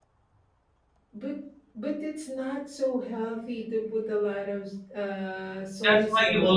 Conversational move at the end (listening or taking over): taking over